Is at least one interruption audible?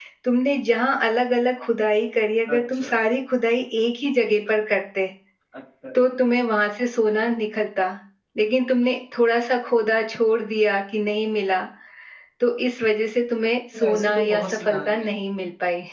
Yes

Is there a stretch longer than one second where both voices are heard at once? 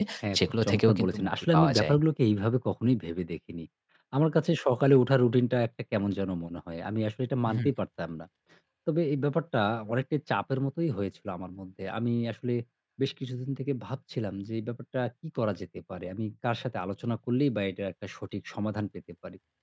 Yes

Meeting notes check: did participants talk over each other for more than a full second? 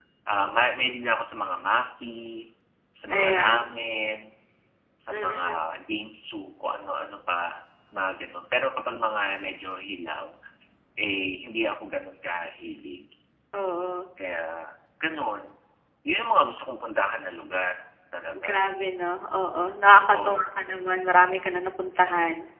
No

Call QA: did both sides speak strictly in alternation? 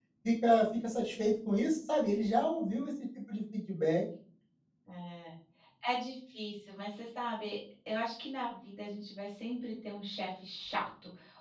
Yes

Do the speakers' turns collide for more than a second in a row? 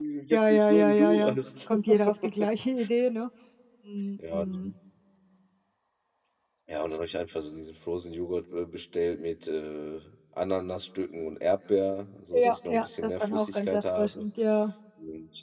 Yes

